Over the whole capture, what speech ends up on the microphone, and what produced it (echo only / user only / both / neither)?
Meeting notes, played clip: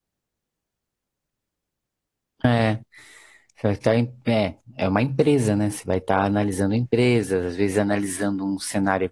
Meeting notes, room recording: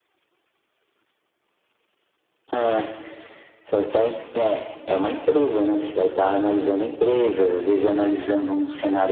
echo only